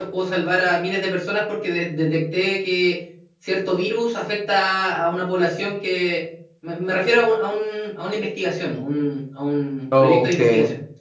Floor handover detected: No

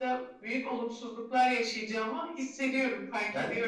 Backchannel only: No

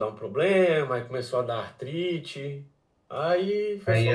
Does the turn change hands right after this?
Yes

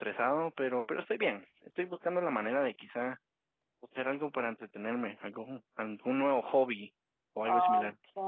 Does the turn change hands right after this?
Yes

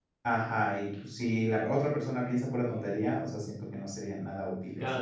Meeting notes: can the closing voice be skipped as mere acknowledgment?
No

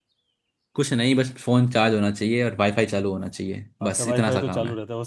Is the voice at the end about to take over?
Yes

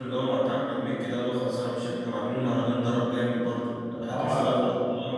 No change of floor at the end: No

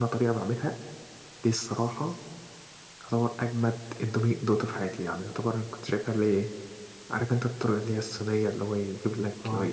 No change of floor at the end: Yes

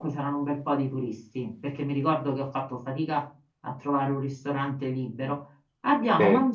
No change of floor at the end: Yes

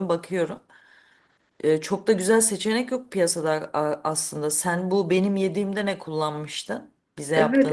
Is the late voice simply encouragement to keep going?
No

